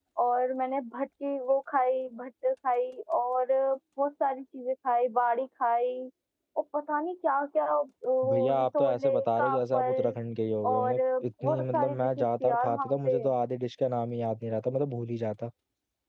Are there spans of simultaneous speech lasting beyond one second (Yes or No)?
Yes